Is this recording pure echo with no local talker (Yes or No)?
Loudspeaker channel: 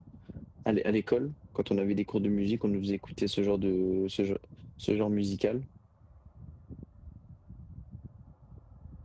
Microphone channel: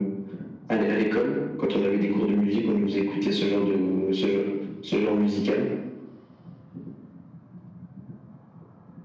Yes